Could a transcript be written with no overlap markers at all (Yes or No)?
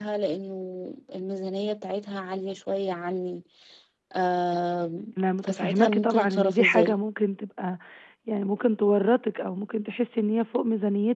No